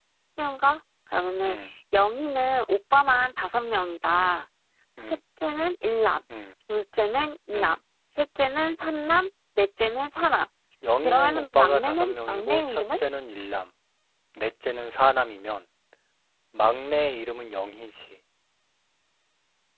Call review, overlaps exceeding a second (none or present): present